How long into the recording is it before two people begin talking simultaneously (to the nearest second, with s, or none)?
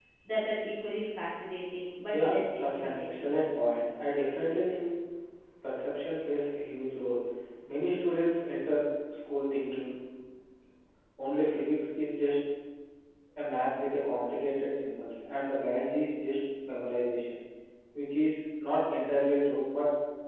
2 s